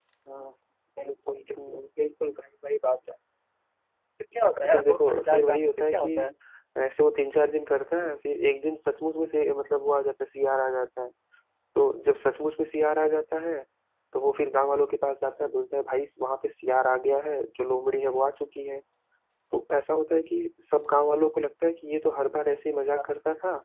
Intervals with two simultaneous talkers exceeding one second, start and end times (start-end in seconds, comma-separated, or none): 4.7-6.1